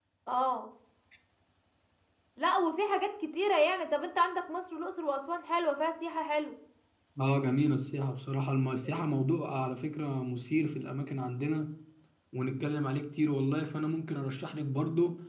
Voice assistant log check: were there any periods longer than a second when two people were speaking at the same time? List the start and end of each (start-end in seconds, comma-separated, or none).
none